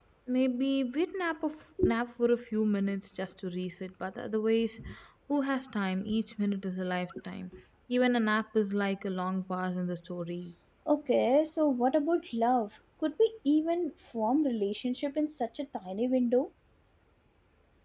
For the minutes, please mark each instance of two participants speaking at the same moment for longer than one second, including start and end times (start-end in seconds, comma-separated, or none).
none